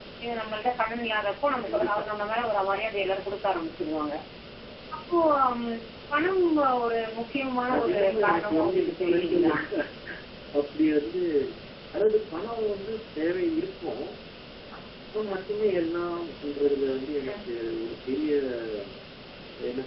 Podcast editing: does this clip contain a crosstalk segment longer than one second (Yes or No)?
Yes